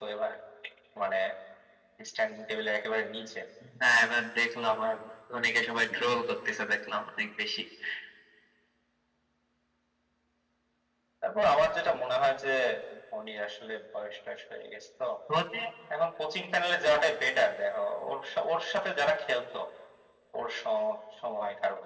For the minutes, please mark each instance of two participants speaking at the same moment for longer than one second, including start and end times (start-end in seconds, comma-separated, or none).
none